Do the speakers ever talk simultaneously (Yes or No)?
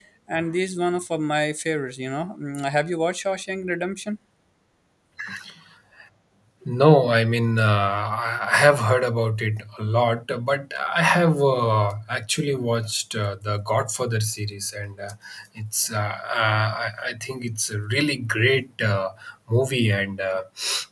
No